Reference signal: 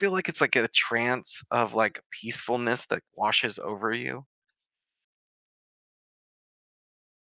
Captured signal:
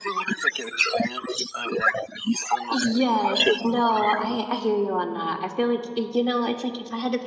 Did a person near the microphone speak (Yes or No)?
Yes